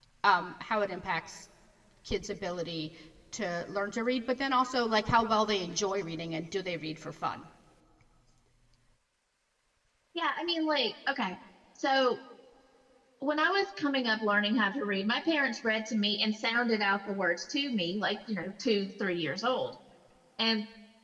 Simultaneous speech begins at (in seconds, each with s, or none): none